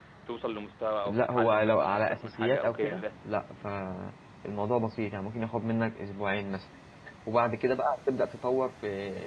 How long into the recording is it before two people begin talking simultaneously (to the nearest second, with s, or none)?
1 s